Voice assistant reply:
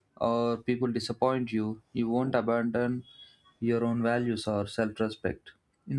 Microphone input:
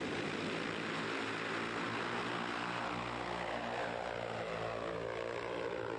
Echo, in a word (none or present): none